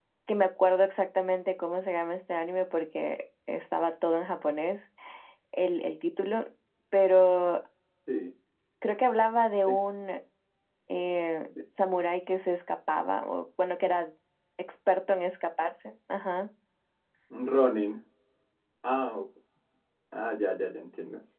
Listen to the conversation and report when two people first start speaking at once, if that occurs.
none

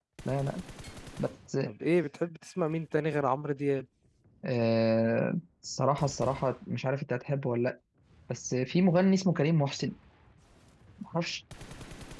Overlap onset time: none

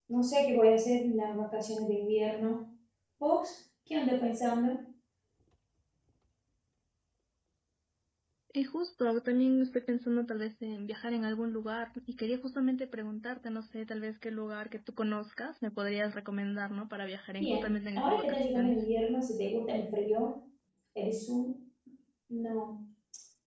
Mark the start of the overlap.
17.4 s

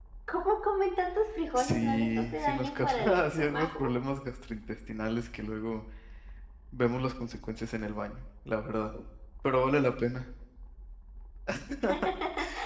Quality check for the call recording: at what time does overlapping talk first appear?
1.5 s

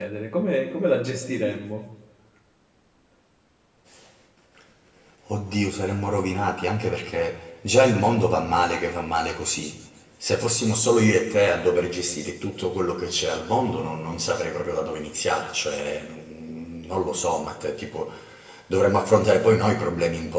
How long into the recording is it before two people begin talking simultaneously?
none

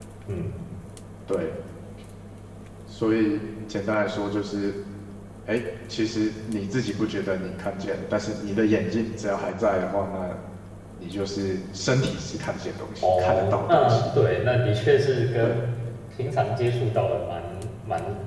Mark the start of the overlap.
13.0 s

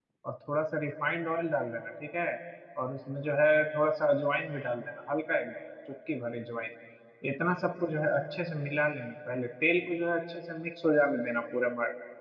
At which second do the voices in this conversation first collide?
none

